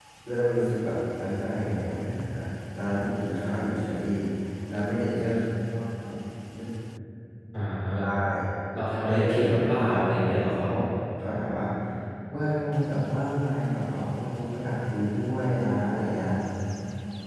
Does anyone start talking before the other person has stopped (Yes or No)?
Yes